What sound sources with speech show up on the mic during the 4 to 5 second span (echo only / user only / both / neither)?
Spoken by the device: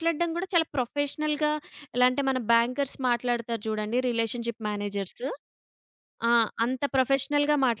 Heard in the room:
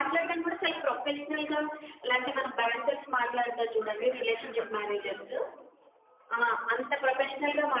both